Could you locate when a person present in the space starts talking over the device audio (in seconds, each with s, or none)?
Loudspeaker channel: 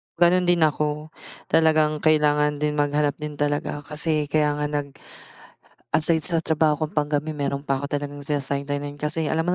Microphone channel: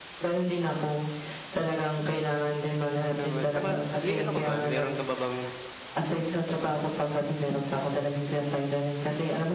3.1 s